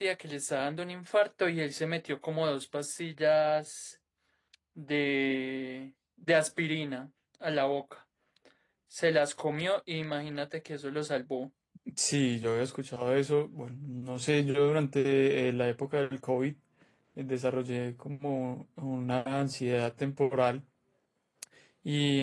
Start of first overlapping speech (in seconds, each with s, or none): none